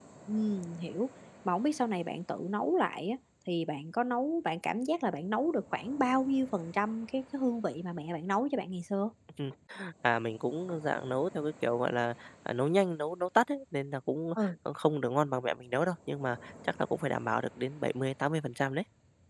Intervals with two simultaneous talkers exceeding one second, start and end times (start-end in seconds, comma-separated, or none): none